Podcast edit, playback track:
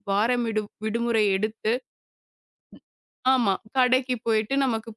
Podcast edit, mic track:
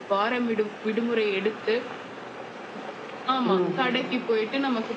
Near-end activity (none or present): present